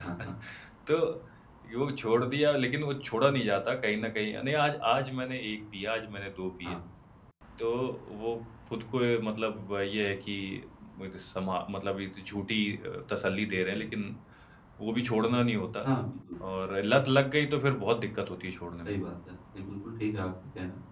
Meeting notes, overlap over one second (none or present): none